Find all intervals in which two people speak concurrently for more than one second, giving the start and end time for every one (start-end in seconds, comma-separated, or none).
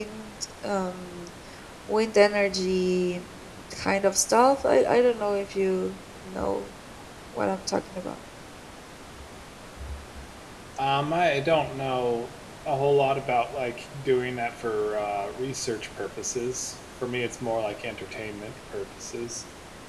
none